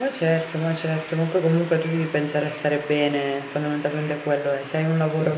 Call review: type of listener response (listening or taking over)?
listening